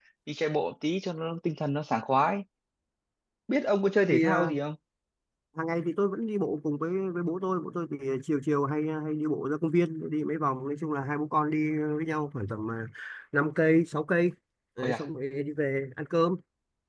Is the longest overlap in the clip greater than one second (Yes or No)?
No